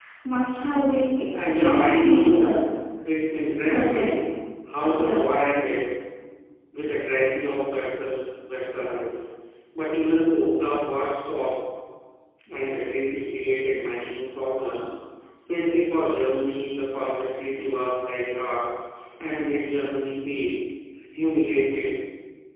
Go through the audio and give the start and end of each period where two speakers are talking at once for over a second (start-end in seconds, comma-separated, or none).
1.4-2.6